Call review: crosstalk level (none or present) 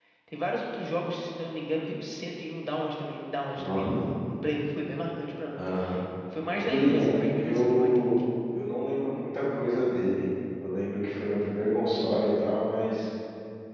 present